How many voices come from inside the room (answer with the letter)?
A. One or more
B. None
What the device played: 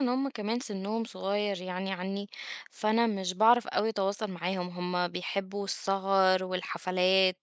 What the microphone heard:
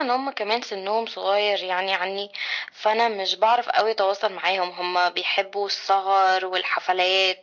B